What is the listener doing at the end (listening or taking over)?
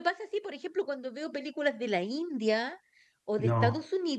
listening